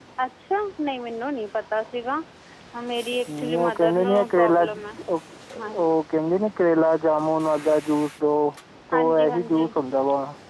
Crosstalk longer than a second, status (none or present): present